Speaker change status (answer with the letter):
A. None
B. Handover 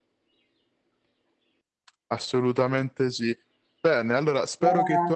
A